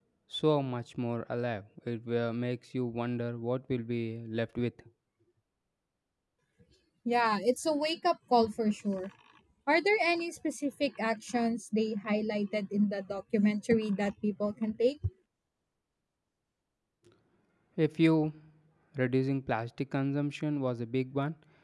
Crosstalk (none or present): none